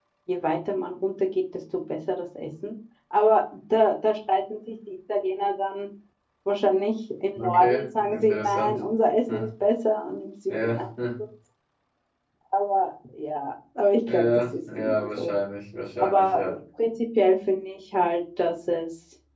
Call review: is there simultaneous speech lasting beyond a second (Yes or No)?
Yes